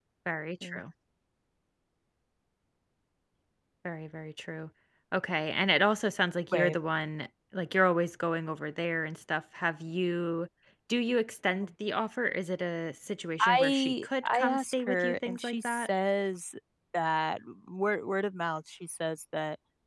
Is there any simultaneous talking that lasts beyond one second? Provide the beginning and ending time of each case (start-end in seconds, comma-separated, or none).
13.4-15.9